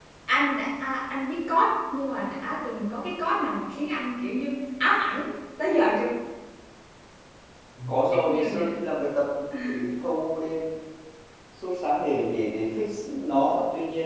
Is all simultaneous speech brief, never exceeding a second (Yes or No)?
Yes